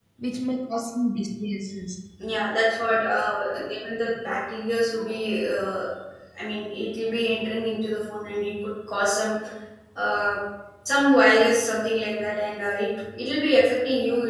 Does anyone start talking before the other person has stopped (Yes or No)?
No